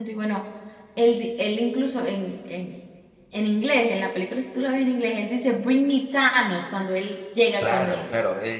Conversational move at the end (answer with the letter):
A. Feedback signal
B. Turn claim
B